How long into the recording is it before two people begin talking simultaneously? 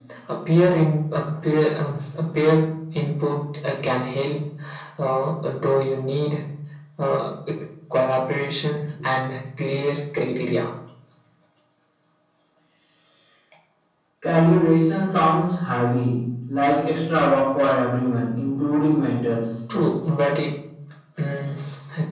none

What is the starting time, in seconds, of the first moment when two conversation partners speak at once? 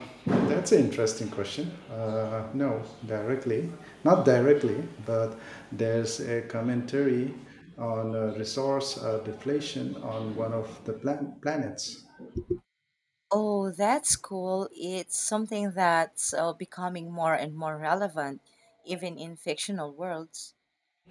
none

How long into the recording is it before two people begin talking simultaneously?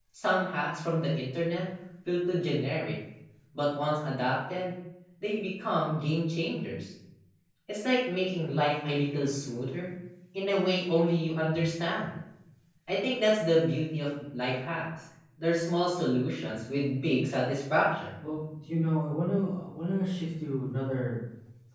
none

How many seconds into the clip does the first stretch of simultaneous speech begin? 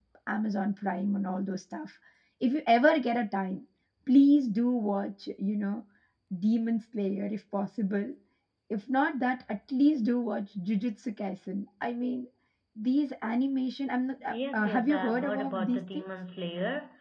14 s

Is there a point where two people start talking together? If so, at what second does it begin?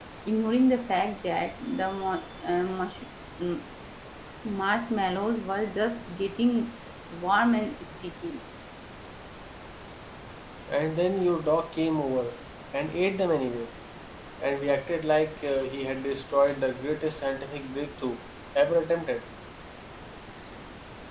none

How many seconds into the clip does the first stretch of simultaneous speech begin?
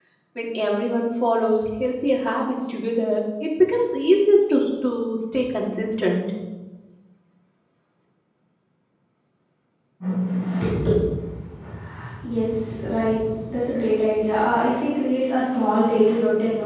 none

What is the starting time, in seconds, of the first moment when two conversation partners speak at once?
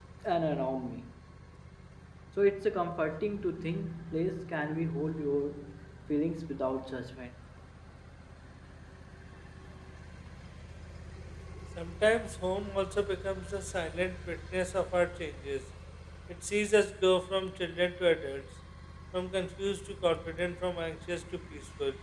none

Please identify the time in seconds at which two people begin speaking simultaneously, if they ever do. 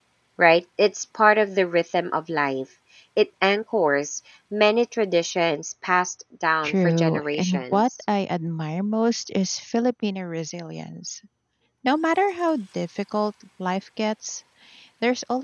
7 s

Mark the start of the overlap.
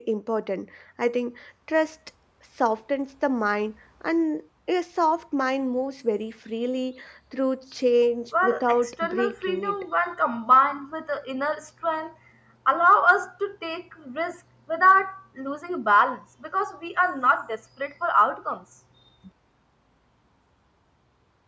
8 s

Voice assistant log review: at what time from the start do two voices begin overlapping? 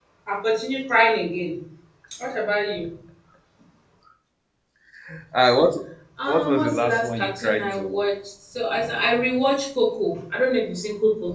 6 s

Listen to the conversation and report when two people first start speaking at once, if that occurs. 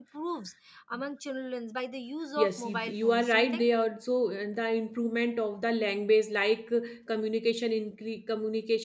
2 s

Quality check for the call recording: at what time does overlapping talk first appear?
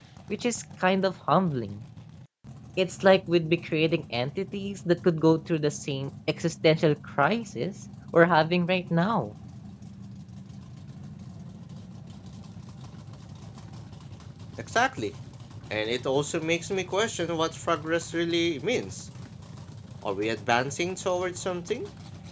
none

